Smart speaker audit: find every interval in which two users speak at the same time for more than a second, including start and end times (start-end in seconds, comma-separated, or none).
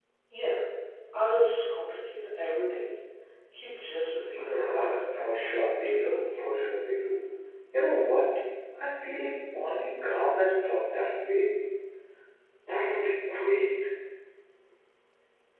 4.5-6.3